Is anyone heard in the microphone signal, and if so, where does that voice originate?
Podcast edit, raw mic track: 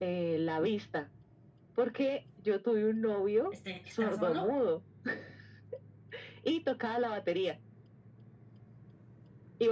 both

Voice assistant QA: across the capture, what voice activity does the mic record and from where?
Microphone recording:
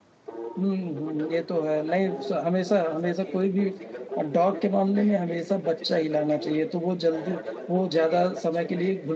both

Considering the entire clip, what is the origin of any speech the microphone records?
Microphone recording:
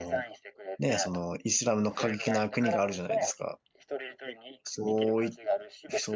both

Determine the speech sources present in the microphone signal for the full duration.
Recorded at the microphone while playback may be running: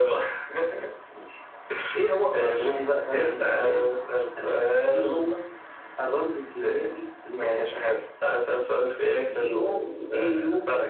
echo only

